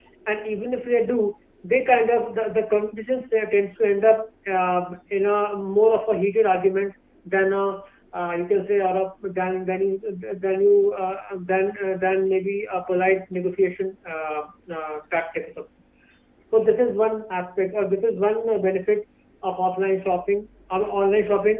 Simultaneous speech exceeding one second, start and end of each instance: none

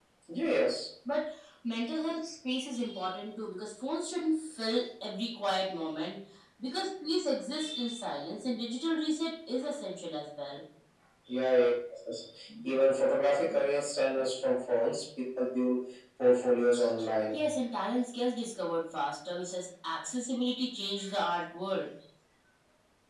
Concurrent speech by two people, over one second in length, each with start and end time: none

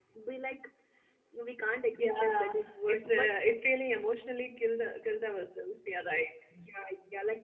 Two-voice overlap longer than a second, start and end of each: 2.0-3.4

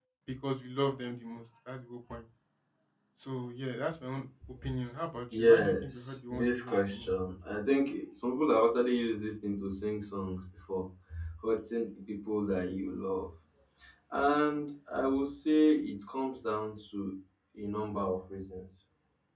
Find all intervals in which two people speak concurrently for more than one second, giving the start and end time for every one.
5.3-7.1

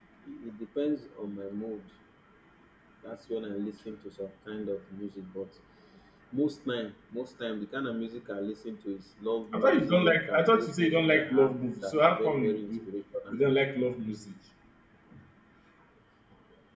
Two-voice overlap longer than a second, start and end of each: 9.5-12.8

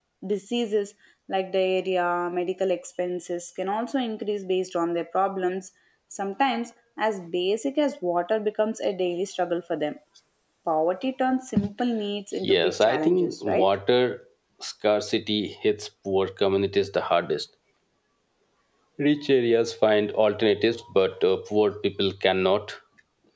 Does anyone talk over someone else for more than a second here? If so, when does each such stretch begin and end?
12.4-13.7

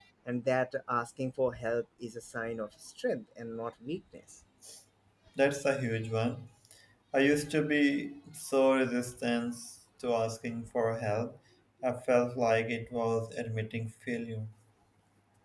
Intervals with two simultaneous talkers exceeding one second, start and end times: none

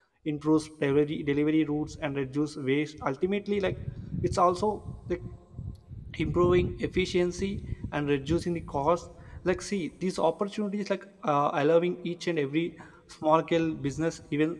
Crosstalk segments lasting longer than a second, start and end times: none

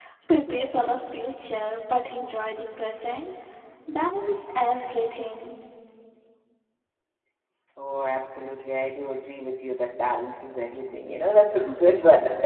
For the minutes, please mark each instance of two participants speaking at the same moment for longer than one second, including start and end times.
none

